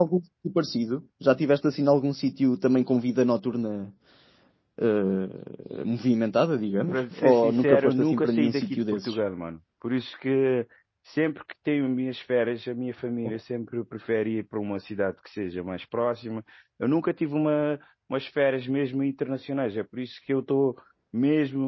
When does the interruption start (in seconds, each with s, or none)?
6.9 s